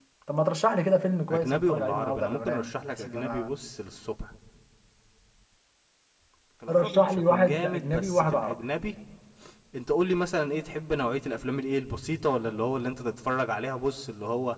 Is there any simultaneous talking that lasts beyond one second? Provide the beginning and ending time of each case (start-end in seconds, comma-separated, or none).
1.3-3.5, 6.7-8.6